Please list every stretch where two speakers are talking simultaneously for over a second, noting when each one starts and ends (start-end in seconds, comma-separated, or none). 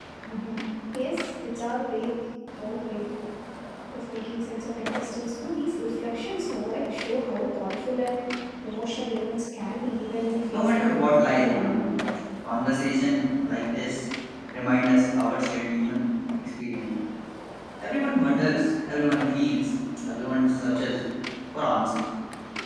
10.5-11.8